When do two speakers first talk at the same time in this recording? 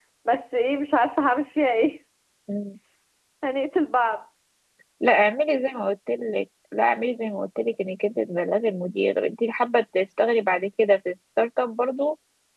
none

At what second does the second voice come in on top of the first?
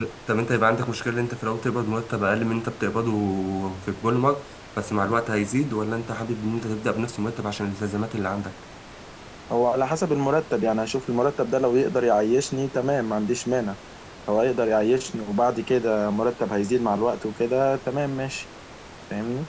none

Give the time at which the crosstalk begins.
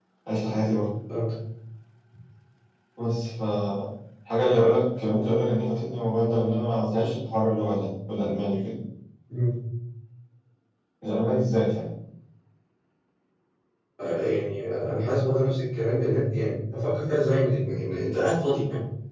none

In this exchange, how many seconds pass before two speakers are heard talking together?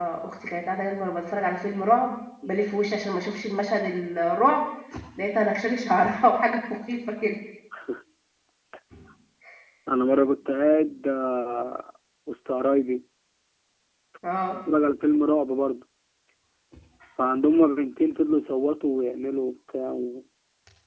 none

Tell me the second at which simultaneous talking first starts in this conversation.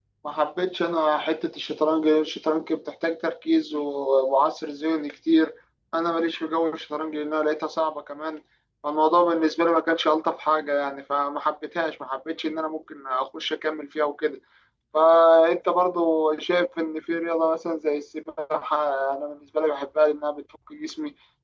none

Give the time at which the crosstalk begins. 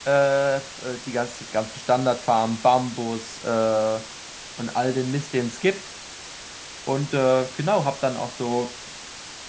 none

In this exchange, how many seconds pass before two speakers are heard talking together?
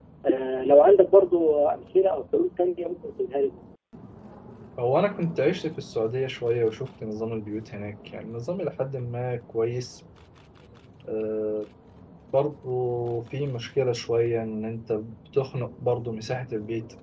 none

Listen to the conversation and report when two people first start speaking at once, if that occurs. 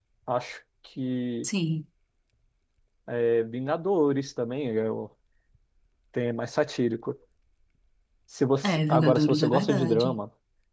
8.6 s

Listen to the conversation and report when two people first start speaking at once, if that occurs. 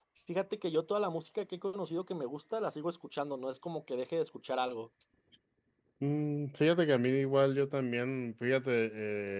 none

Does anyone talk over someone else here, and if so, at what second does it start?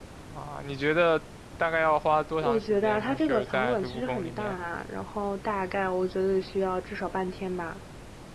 2.4 s

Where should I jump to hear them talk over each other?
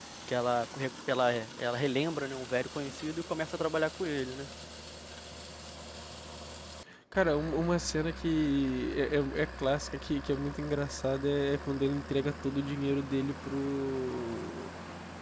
none

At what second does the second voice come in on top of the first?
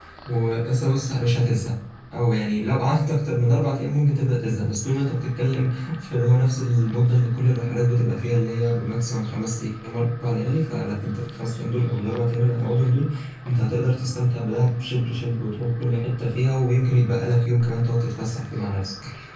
none

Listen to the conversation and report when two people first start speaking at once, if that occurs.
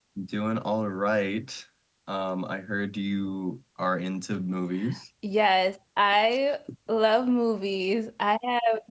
none

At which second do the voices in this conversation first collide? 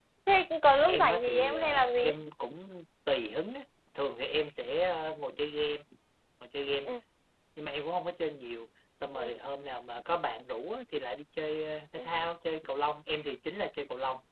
0.9 s

